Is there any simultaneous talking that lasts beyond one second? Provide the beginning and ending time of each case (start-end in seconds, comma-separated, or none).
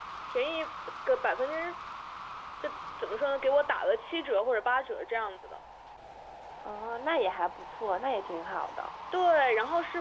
none